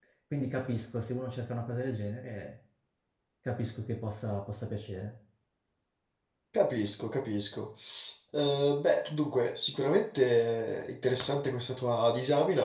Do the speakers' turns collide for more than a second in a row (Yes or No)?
No